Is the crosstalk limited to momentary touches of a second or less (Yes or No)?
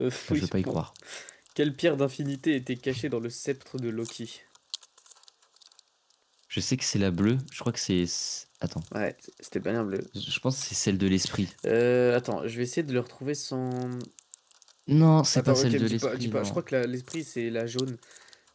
No